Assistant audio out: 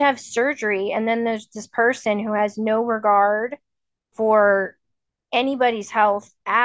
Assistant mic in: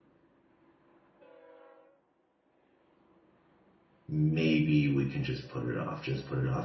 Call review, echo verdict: none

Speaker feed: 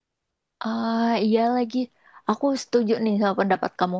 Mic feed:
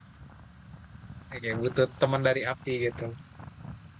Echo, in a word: none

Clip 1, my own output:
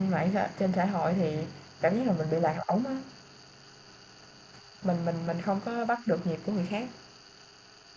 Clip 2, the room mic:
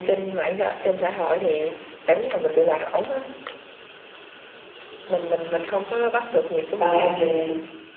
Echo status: present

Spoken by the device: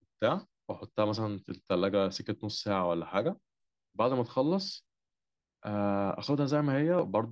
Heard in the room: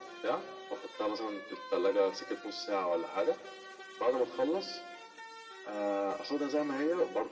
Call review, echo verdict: present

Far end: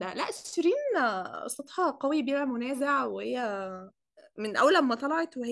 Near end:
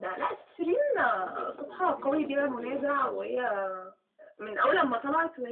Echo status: present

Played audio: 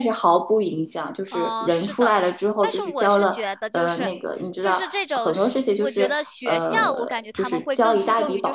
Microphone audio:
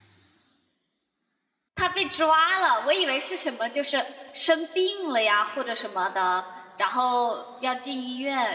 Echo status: none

